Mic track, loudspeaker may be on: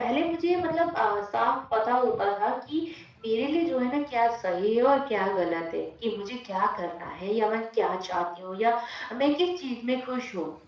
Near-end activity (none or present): none